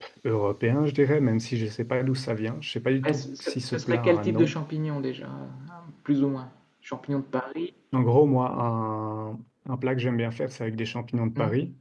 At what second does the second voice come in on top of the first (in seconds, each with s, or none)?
3.0 s